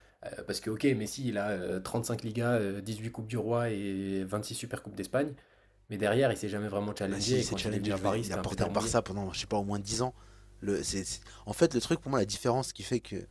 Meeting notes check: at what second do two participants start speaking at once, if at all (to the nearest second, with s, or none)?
7 s